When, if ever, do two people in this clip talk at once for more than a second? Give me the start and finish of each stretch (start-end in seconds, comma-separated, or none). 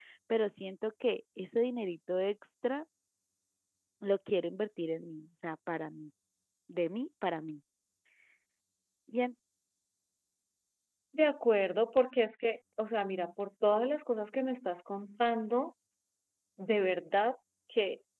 none